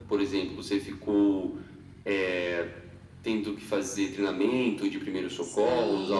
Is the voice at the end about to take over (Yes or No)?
Yes